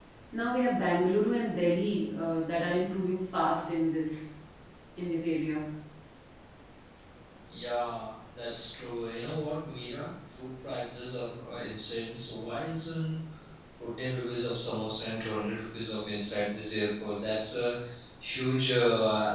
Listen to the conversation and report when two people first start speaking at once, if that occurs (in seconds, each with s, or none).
none